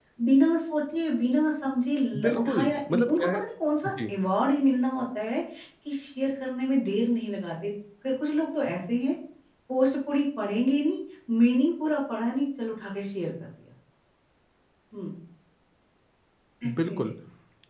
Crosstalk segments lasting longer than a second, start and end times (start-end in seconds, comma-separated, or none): 2.2-3.4